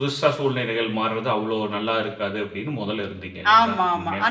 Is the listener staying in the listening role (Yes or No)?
No